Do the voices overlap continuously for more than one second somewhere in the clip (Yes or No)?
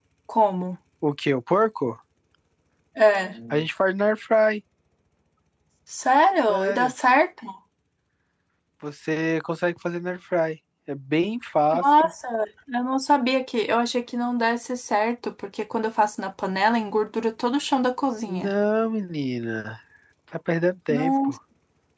No